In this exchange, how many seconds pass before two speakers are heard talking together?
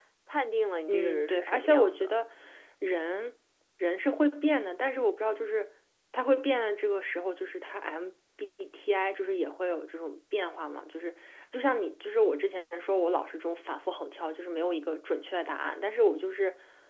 0.9 s

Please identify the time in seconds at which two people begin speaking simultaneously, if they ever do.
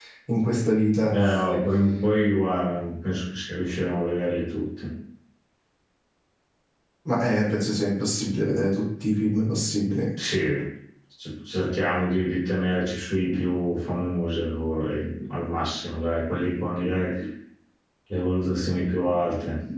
none

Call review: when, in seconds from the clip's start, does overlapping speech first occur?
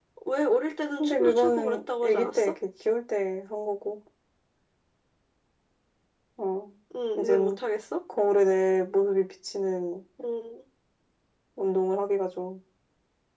1.0 s

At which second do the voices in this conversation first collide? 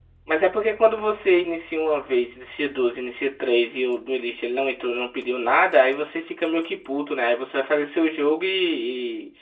none

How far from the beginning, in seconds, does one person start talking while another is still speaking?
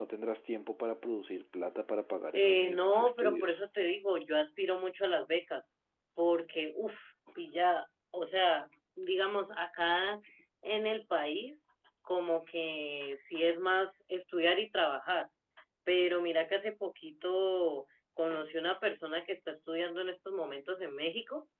2.3 s

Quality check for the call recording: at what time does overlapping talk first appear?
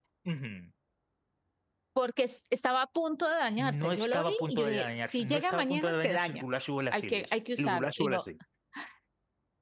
3.6 s

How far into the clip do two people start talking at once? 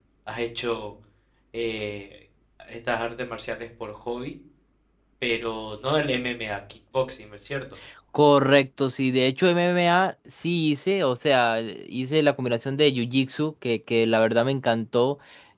none

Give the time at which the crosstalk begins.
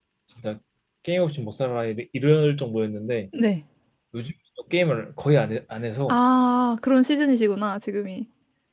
none

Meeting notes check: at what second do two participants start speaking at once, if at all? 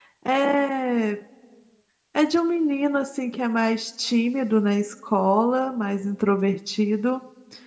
none

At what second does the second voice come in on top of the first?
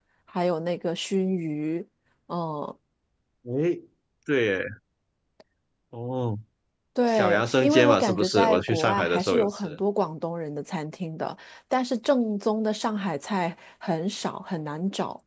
7.1 s

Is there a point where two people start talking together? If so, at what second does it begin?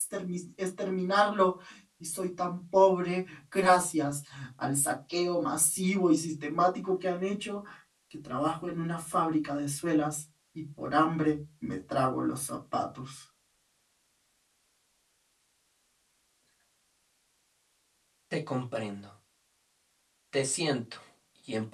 none

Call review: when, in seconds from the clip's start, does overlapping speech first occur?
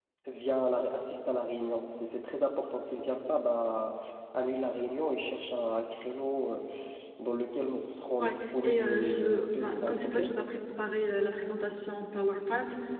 8.2 s

